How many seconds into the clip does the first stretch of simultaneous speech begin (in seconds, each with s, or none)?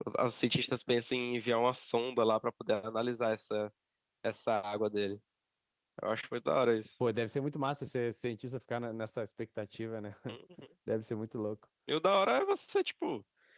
none